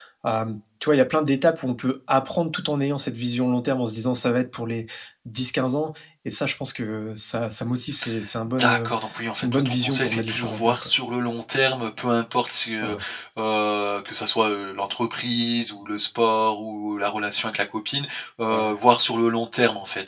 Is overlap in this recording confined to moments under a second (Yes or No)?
No